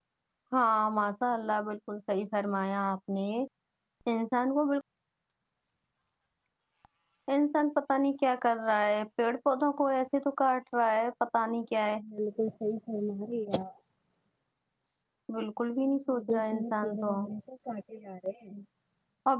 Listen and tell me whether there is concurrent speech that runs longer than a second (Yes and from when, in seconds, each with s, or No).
Yes, from 15.8 s